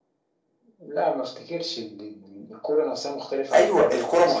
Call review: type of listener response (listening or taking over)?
taking over